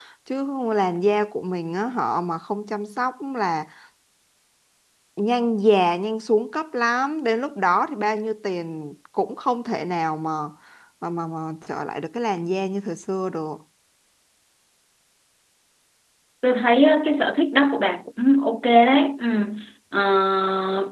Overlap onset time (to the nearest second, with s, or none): none